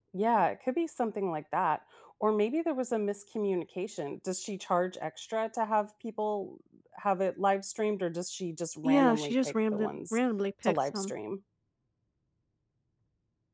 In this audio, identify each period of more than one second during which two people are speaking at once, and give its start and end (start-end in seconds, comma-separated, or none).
8.8-10.2